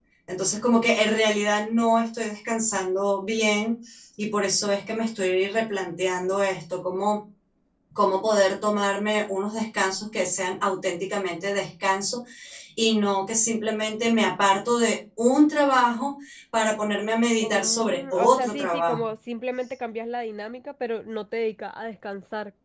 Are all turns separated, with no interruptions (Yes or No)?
No